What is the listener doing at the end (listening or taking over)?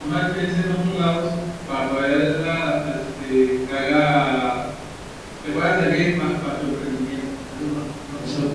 taking over